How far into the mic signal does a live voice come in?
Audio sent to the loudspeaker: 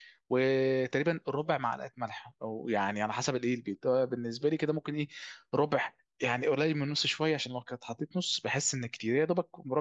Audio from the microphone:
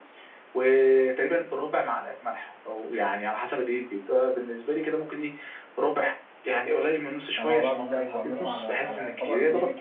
7.4 s

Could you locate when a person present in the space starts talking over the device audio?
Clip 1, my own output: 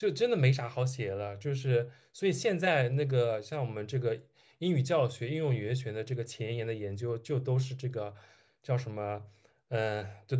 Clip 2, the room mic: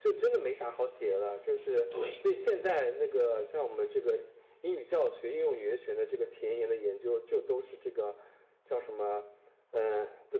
1.9 s

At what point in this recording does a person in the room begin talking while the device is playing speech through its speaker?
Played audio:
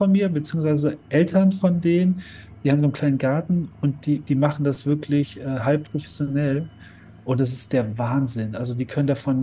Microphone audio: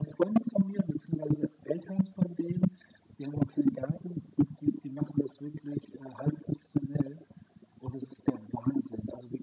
none

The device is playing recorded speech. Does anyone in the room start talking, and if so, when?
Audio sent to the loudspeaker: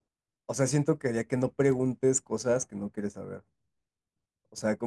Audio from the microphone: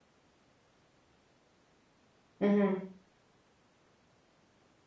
2.4 s

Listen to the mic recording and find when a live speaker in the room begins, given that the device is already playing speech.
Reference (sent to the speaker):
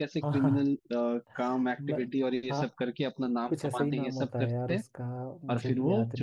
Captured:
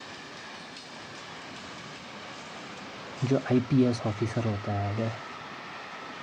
3.2 s

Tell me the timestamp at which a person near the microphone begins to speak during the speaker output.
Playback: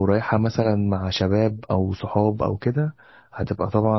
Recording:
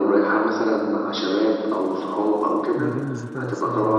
2.8 s

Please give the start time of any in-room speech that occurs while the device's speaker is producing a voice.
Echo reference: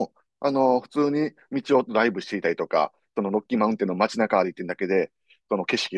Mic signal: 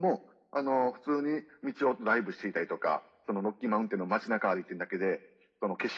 none

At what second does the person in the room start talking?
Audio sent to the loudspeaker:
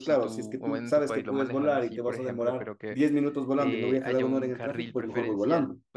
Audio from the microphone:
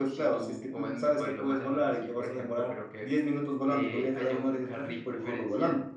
none

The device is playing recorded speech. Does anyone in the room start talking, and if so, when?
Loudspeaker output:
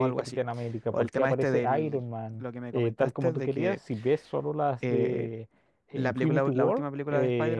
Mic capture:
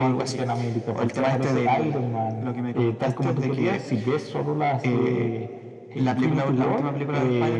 none

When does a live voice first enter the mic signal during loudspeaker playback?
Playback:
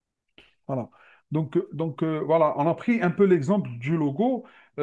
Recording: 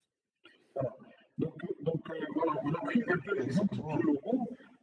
3.4 s

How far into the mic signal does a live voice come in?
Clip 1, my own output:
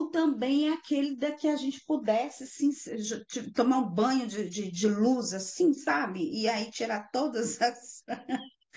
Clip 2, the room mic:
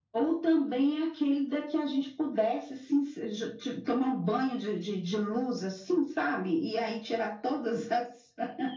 none

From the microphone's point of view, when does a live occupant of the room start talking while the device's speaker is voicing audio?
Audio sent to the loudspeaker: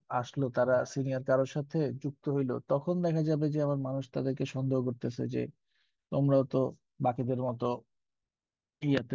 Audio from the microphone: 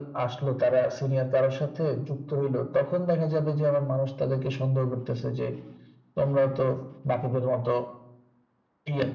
none

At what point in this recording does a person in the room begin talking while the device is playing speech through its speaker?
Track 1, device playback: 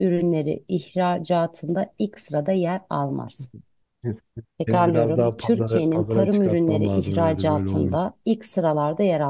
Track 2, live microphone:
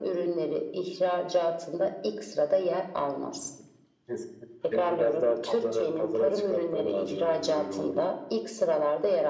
none

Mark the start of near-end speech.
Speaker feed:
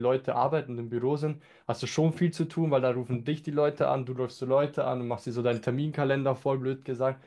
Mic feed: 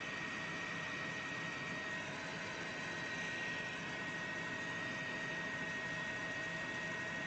none

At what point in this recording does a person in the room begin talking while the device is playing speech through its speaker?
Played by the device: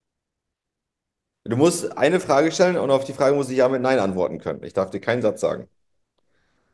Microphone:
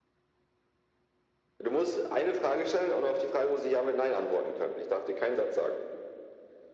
none

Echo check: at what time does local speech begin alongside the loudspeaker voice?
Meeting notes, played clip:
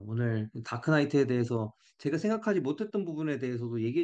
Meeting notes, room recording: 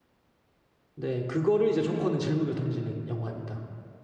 0.9 s

